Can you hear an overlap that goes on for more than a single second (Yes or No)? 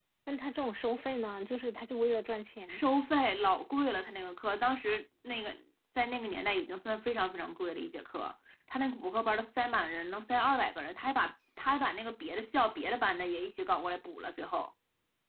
No